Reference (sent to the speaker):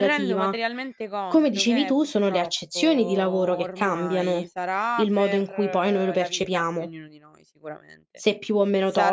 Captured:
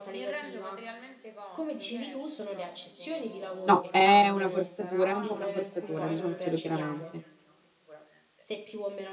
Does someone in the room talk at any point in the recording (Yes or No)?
Yes